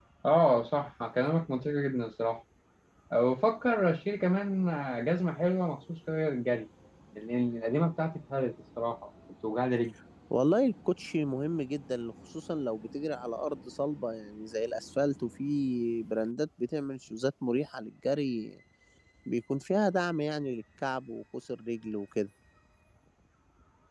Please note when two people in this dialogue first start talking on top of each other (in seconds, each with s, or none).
none